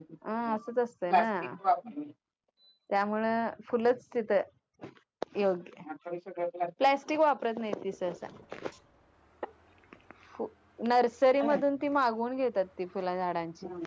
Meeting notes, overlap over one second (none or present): none